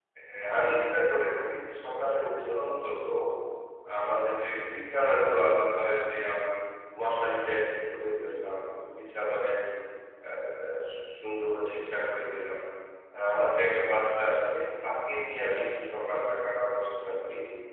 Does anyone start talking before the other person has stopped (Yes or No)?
No